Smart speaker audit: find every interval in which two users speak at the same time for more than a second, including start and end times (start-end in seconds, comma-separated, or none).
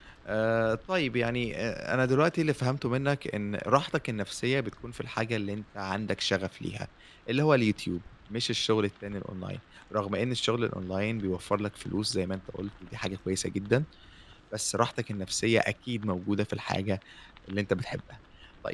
none